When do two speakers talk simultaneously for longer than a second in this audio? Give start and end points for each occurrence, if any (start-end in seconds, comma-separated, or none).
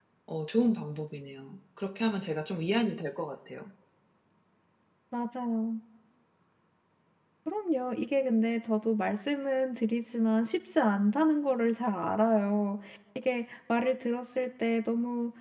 none